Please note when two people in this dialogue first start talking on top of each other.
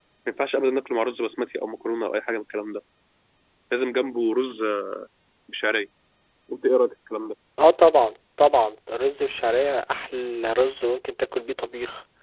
none

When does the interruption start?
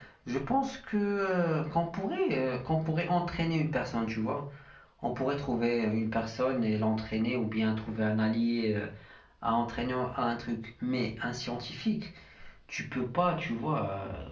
none

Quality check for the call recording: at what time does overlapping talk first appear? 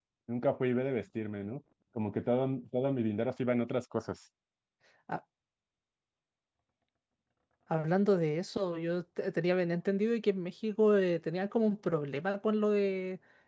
none

